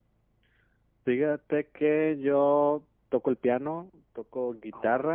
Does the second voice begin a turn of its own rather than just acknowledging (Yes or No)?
No